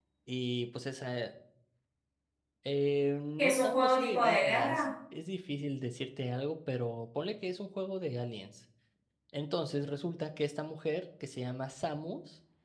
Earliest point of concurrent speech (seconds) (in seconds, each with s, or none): 3.4 s